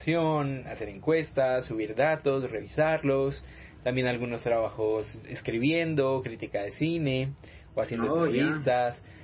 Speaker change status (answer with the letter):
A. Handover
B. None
B